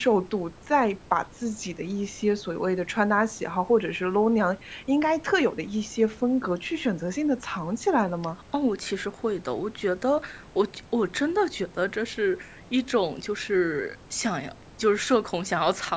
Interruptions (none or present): none